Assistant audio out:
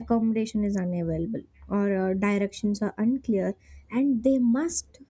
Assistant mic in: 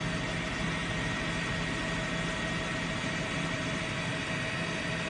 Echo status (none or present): none